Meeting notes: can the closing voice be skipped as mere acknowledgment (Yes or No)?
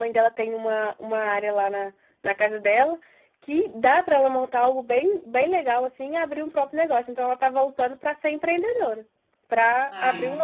Yes